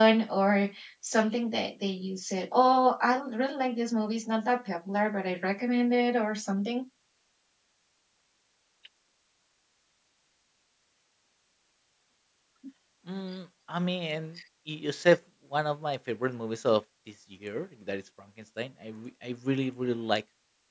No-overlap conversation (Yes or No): Yes